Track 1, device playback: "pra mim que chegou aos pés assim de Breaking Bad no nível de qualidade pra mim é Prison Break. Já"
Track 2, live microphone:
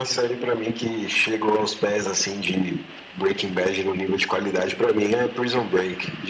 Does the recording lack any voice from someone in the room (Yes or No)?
Yes